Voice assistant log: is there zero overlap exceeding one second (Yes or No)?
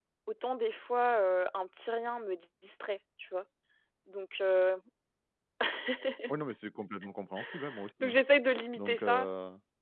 Yes